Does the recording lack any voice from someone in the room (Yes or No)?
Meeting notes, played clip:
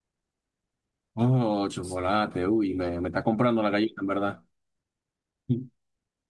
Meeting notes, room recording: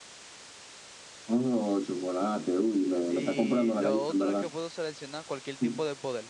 No